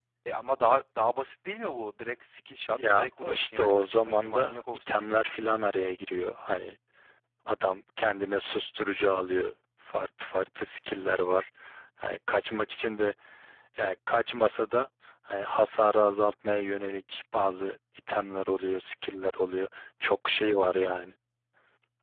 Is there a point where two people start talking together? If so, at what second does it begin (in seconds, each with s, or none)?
2.8 s